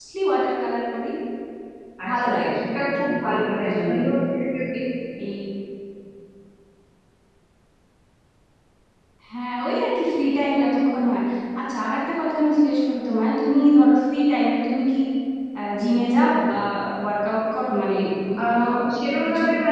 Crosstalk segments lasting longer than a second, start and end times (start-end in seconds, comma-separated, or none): 2.1-4.1